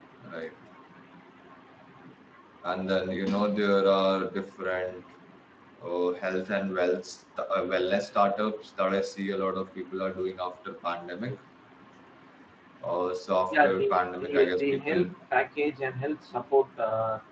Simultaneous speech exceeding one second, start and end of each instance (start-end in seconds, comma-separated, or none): 13.5-15.1